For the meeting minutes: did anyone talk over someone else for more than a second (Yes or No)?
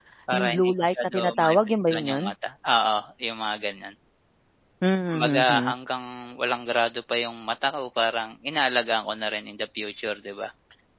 Yes